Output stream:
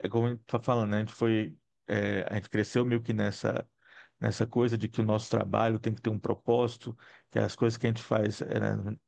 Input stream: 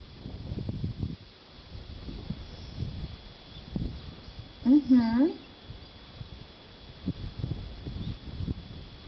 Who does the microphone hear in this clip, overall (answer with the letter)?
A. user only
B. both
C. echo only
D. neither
A